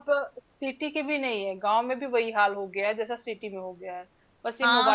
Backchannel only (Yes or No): No